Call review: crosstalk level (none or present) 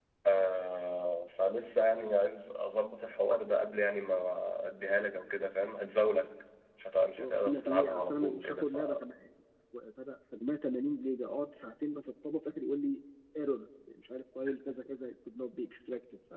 present